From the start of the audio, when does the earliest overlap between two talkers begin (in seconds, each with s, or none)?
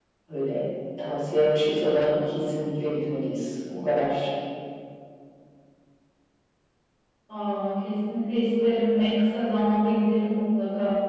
none